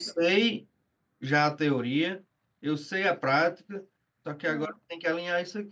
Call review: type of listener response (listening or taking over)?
listening